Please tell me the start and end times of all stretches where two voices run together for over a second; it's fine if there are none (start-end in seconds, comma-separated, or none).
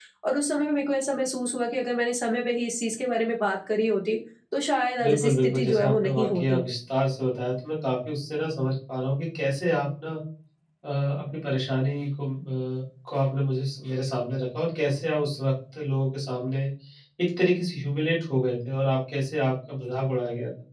5.0-6.6